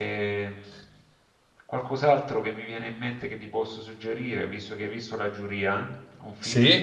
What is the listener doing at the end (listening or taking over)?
listening